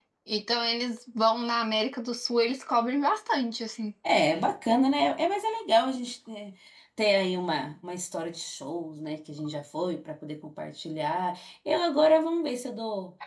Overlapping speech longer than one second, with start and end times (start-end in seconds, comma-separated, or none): none